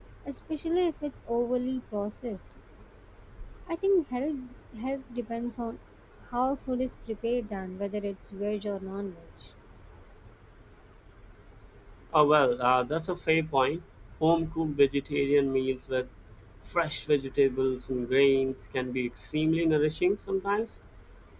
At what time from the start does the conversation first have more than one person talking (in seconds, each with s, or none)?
none